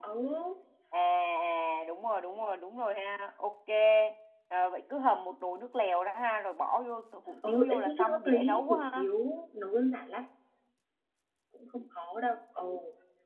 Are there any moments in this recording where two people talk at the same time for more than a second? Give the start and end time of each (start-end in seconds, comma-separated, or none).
7.5-9.0